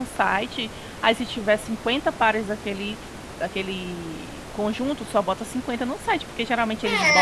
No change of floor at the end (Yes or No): No